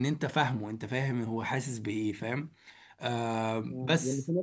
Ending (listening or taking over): taking over